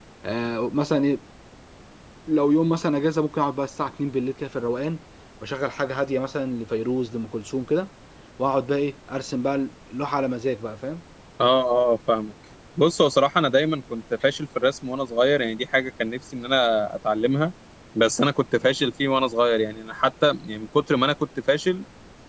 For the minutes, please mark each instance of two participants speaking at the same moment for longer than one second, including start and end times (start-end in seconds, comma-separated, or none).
none